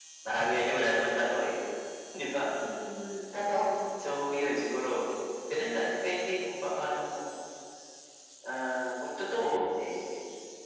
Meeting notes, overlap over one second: none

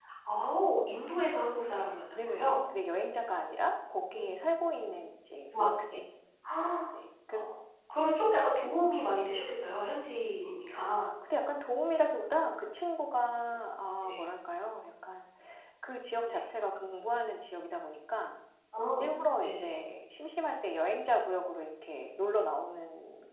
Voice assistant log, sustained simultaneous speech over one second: none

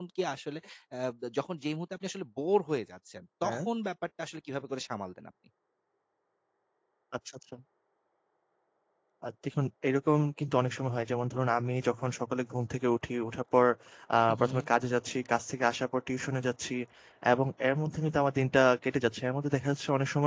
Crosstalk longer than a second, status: none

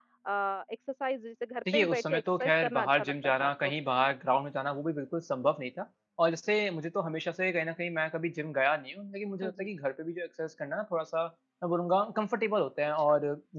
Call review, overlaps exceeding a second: present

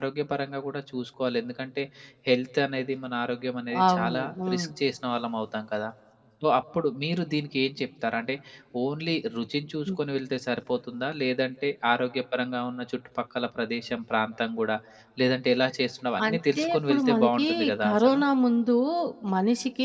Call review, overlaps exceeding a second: present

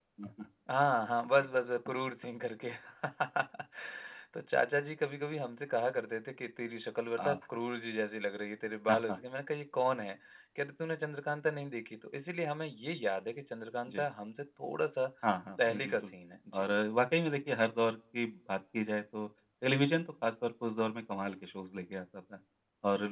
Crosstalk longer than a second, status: none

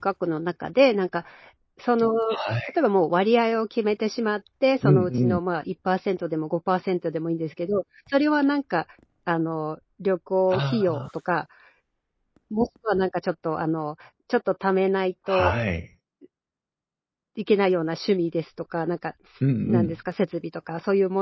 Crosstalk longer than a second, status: none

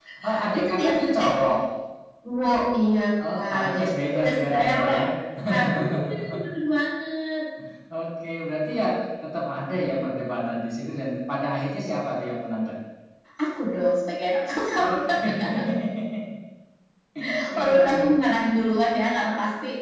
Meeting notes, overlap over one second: present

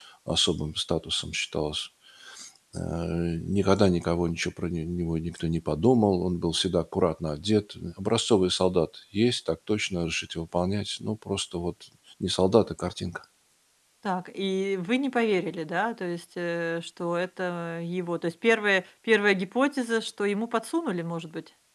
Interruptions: none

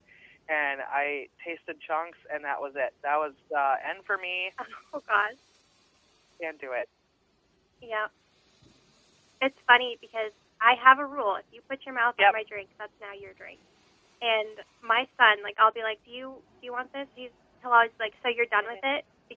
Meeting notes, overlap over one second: none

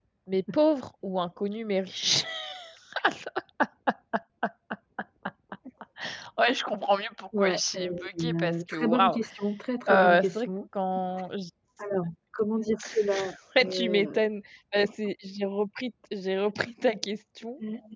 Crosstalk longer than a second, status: present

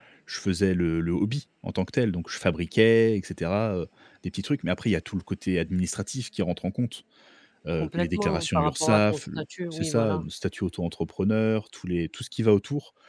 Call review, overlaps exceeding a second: present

